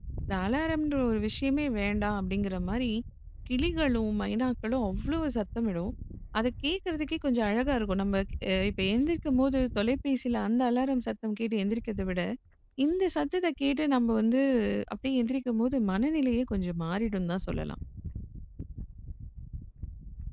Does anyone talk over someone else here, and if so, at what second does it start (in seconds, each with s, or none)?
none